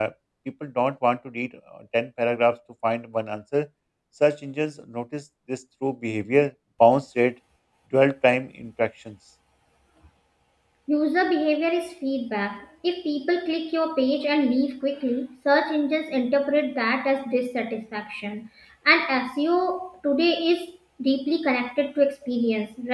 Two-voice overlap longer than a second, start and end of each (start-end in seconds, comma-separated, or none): none